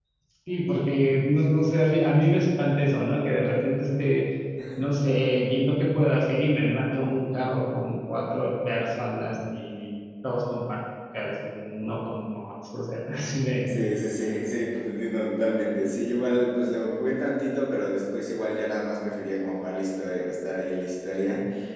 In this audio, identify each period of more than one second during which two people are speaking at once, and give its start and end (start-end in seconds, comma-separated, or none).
none